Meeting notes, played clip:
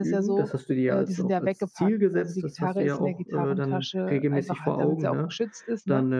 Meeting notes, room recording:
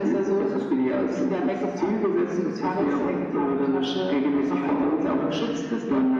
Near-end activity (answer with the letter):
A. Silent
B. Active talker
A